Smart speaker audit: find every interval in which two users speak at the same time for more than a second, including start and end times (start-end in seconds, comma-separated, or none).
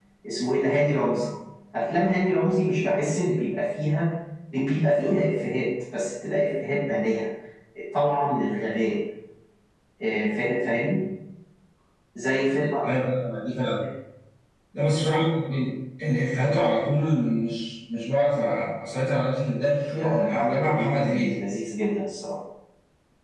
20.0-21.3